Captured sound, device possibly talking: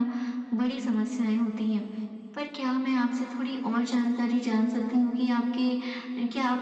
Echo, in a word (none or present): present